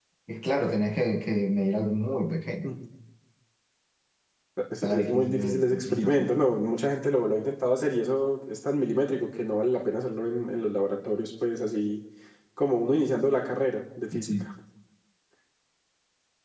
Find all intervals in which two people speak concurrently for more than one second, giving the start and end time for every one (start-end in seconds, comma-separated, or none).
4.8-6.3